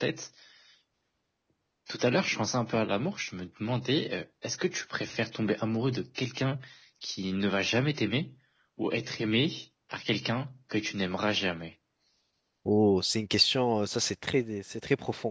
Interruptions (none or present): none